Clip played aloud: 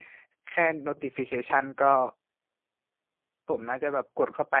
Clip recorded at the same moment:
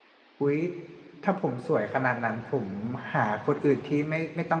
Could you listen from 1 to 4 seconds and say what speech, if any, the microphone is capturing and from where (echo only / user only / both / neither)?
user only